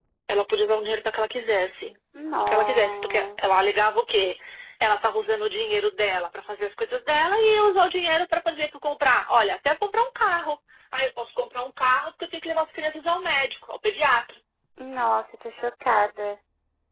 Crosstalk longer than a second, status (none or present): present